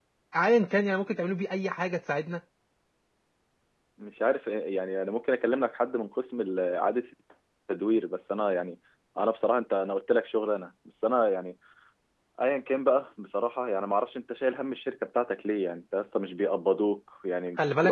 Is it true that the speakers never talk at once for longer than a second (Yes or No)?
Yes